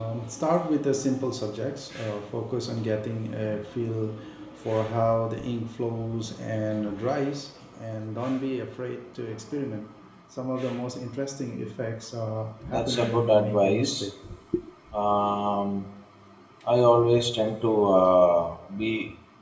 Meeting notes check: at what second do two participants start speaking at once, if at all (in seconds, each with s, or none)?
12.6 s